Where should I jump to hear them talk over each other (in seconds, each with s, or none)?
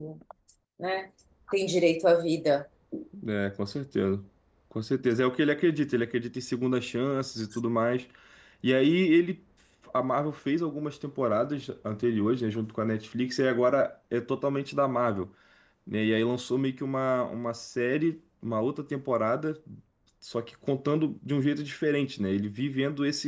none